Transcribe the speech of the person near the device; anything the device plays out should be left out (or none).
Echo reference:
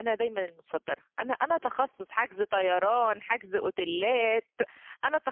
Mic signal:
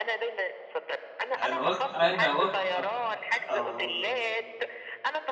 أنا واث أنا واثقة ف آه.